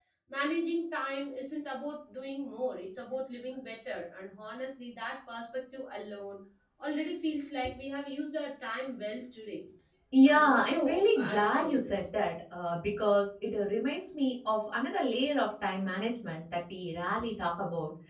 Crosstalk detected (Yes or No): Yes